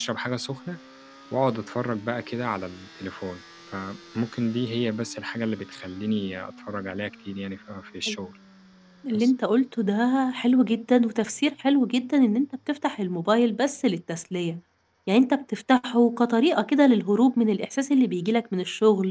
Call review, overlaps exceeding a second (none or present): none